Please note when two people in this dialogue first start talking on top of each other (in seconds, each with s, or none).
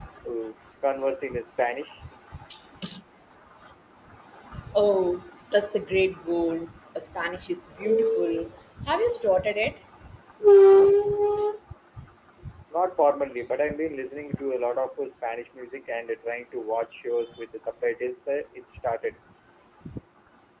none